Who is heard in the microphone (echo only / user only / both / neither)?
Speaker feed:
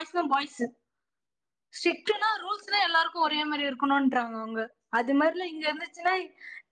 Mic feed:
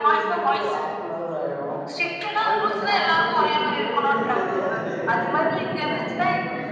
both